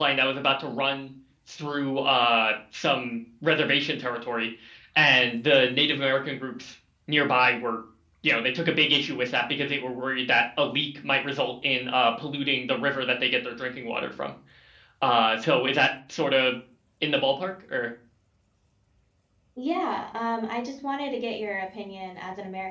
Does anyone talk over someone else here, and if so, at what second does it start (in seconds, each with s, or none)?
none